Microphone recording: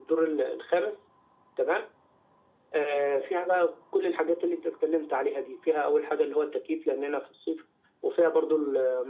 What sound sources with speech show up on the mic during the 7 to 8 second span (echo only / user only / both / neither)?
echo only